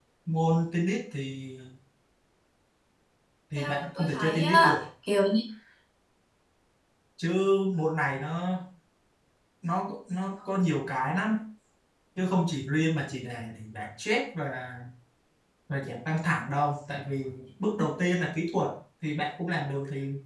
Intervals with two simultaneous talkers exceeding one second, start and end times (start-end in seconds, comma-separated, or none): 3.6-4.8